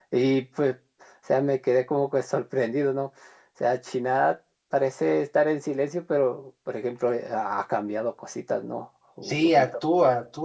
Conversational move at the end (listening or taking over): taking over